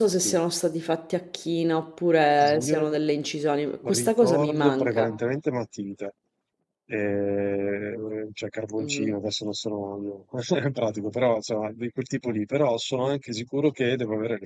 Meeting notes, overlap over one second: present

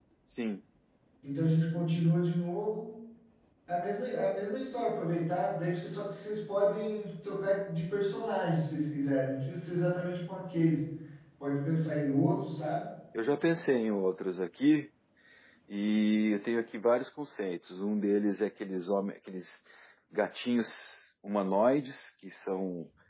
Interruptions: none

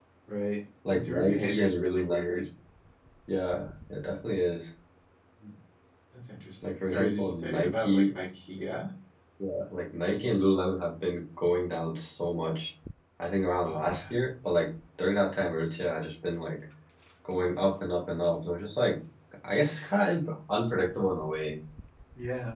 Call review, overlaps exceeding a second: present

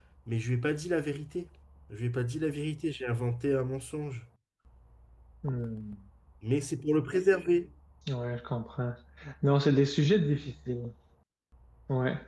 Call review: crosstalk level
none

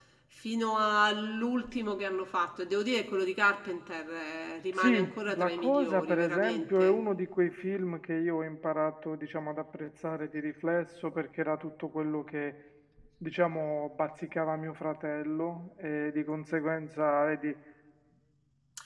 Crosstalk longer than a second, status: present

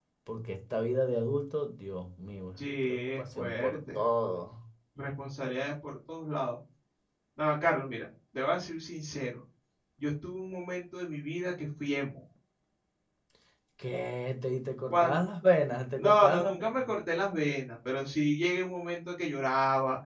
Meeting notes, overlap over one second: present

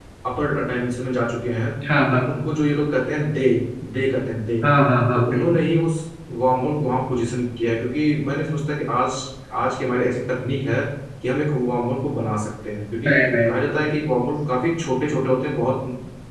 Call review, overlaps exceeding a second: none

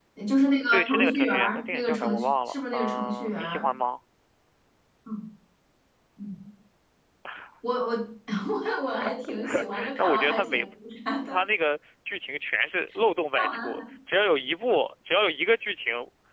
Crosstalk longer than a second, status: present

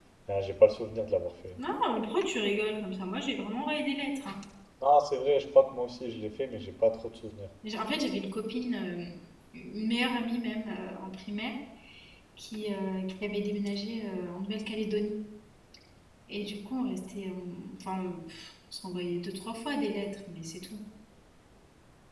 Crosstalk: none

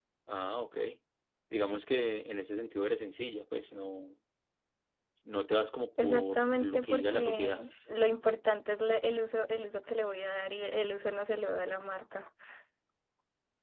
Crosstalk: present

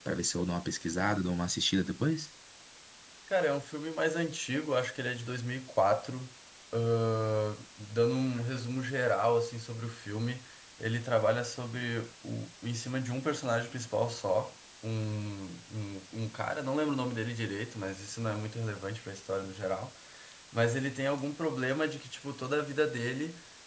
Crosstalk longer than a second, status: none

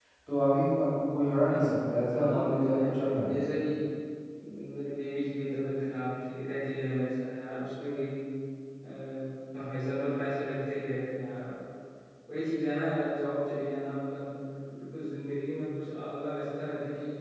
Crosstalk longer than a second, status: present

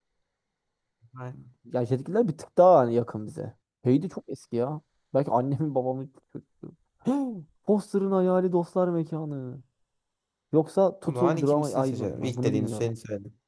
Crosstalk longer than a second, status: present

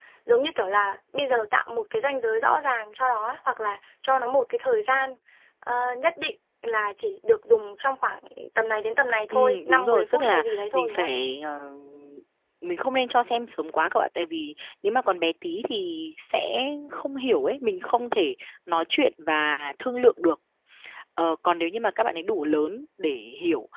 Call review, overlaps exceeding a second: present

